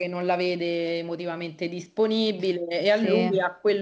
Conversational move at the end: listening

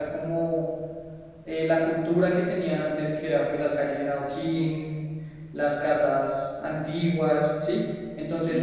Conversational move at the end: taking over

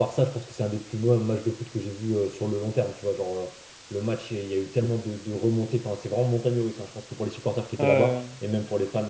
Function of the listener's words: listening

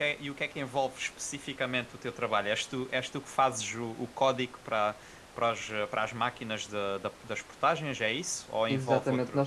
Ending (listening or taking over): taking over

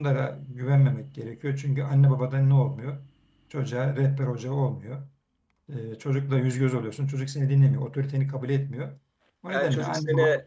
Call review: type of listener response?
taking over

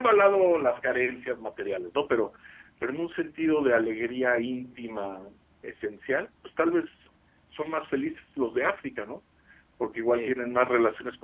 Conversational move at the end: listening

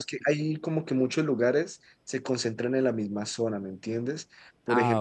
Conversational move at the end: listening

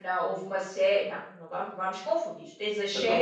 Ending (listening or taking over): listening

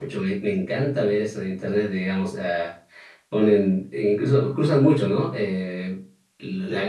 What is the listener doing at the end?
listening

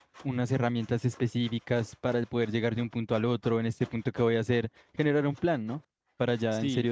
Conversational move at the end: taking over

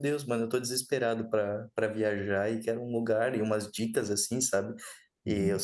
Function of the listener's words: listening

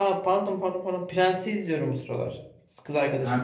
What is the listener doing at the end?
taking over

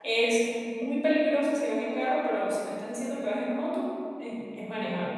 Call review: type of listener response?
taking over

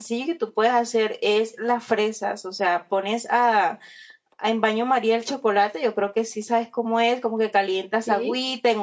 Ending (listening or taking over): listening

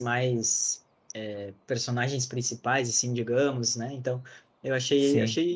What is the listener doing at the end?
listening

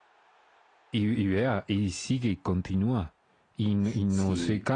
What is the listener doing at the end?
listening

